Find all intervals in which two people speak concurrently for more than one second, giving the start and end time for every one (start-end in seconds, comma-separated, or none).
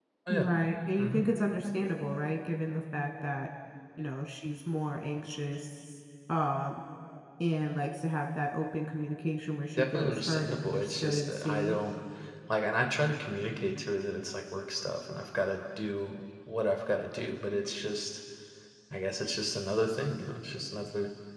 9.8-11.8